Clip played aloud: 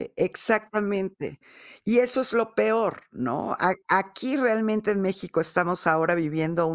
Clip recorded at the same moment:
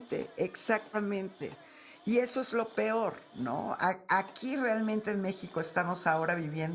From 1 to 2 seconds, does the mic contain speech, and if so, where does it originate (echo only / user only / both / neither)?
echo only